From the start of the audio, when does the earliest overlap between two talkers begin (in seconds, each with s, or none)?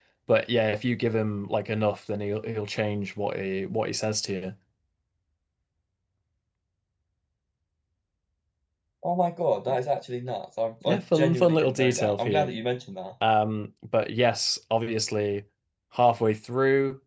10.8 s